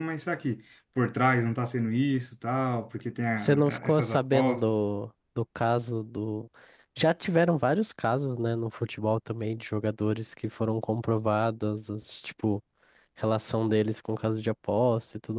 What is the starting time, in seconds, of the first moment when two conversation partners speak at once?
3 s

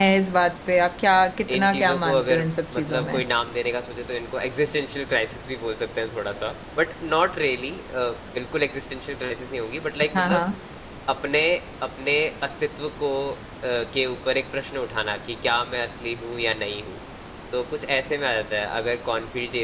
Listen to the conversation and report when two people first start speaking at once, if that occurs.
2 s

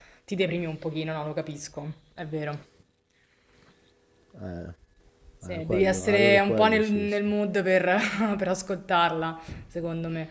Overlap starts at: 5 s

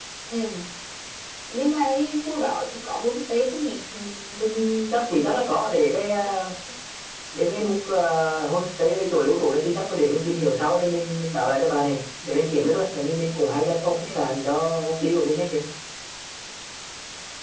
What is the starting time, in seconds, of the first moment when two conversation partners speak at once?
none

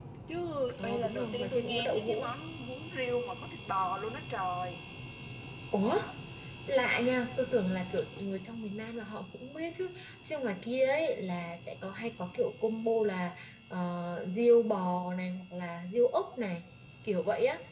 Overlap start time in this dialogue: 1 s

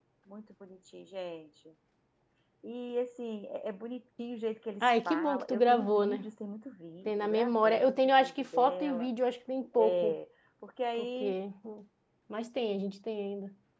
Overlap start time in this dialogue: 5 s

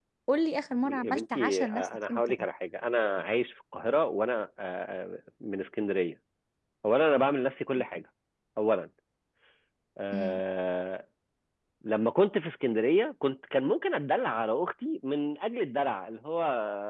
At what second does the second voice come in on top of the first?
1 s

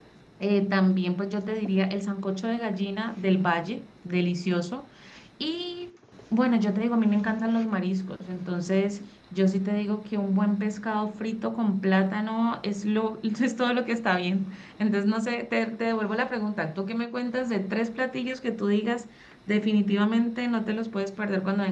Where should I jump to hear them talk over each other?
none

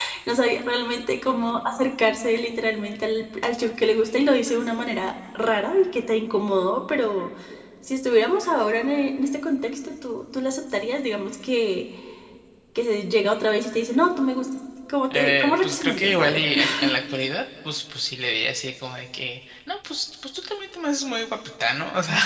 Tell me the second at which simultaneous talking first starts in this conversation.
15 s

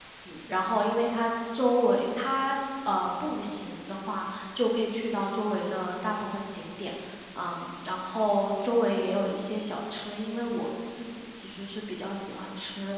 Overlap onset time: none

